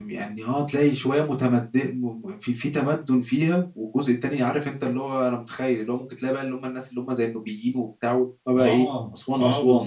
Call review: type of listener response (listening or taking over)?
taking over